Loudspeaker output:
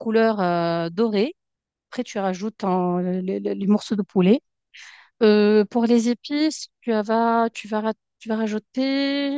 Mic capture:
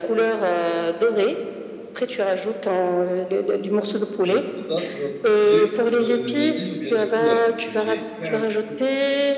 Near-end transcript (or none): Et pour ça, tu vas me donner, tu vas me donner des indices ou bien des couleurs parce que j'ai plein de trucs.